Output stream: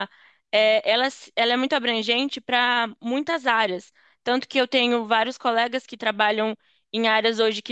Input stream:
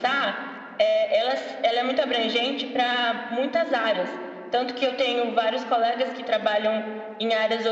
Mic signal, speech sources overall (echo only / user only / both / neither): echo only